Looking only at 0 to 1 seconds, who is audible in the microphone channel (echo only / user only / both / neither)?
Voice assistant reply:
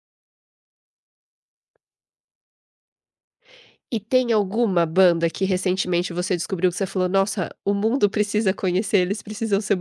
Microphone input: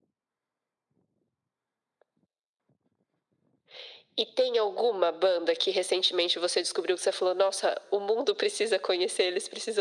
neither